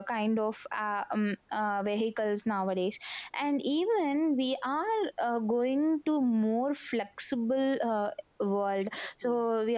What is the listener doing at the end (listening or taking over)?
listening